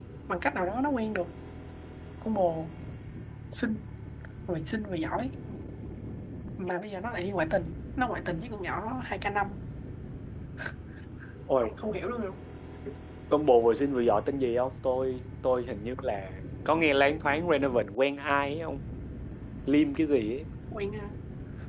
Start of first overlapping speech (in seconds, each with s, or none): none